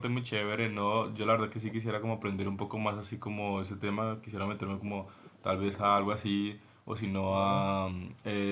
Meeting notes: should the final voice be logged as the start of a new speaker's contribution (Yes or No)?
No